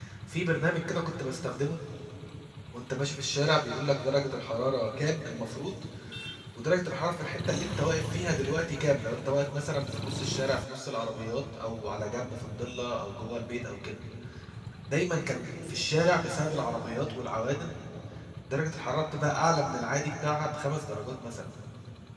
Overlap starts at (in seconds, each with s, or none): none